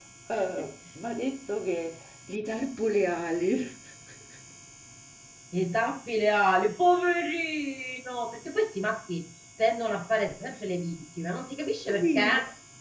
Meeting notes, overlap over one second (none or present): none